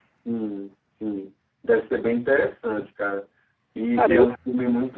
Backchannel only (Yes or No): Yes